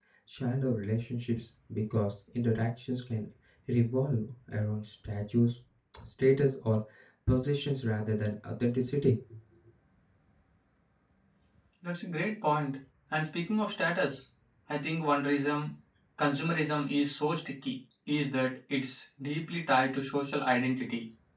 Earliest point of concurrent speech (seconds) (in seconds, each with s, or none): none